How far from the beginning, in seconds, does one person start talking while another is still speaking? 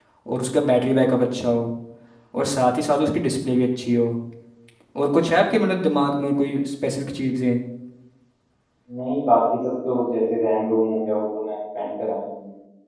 none

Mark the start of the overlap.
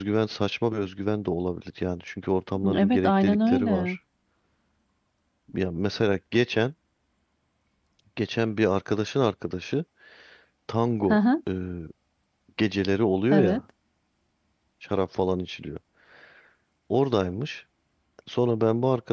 2.7 s

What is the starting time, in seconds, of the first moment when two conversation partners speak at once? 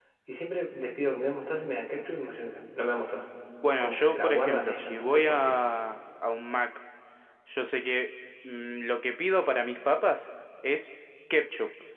3.8 s

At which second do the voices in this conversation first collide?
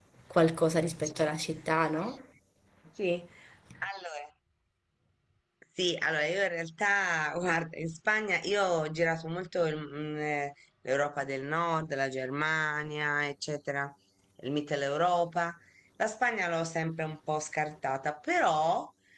none

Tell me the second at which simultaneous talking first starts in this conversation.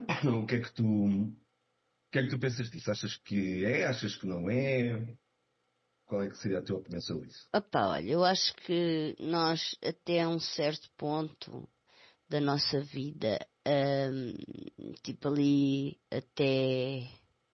none

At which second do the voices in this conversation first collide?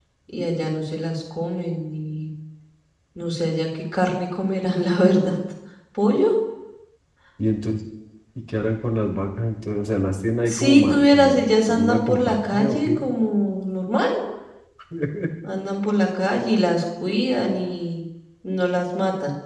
10.5 s

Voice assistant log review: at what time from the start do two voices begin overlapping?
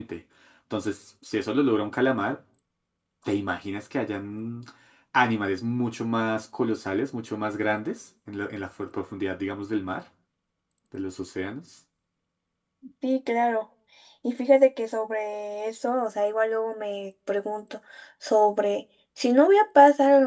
none

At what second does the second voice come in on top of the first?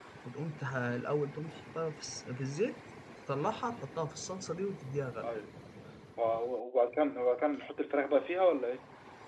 none

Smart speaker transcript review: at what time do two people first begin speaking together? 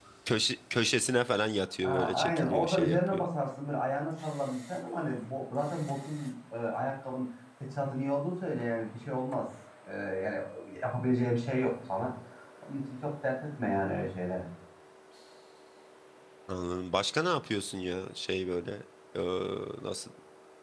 1.8 s

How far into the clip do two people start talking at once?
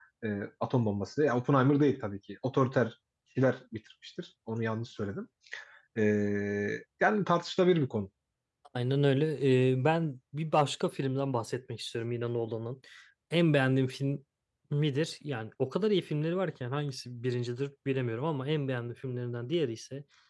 none

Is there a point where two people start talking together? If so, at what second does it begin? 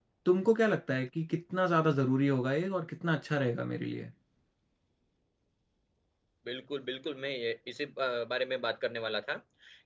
none

